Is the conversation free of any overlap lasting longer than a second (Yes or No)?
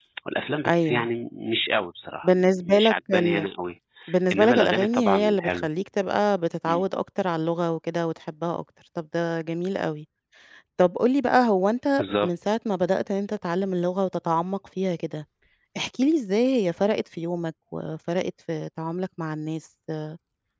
No